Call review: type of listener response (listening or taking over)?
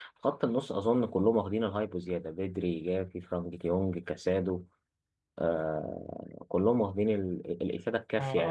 taking over